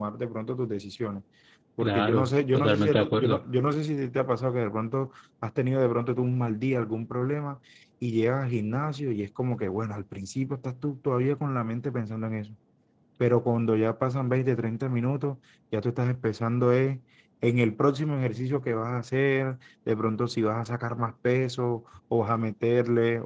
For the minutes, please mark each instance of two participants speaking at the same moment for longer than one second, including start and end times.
1.8-3.4

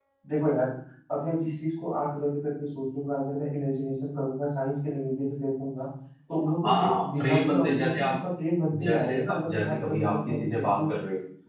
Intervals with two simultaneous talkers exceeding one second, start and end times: 6.6-8.1, 8.8-10.9

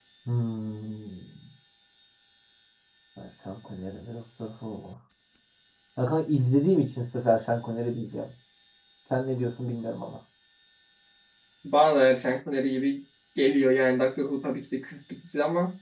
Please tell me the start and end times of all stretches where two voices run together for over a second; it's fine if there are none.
none

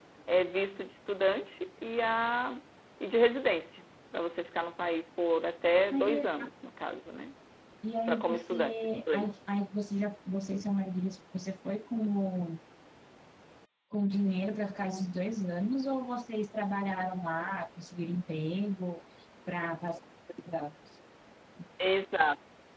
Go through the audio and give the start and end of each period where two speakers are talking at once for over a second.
8.1-9.3

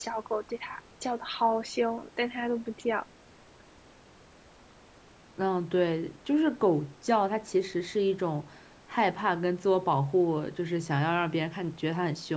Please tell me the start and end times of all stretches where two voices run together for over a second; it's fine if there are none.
none

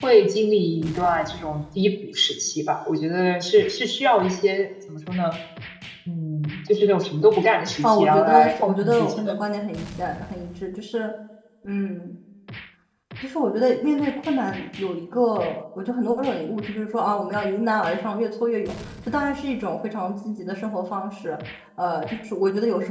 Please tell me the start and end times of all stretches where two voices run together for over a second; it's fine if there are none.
7.8-9.3

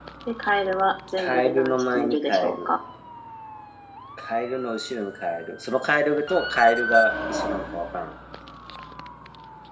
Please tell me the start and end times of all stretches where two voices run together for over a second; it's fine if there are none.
1.2-2.7

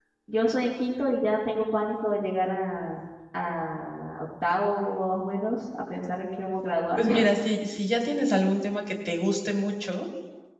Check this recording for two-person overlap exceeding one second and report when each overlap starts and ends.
none

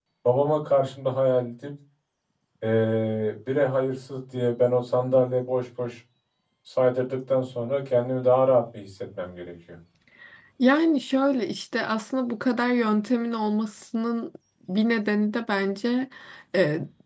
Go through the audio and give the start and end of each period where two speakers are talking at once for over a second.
none

